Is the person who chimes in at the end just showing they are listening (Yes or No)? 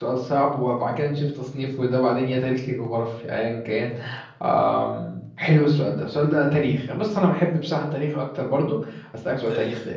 Yes